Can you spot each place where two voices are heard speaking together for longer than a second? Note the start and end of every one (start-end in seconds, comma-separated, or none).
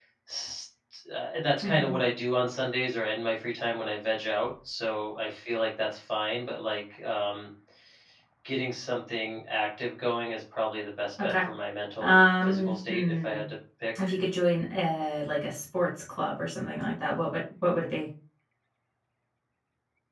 12.0-13.4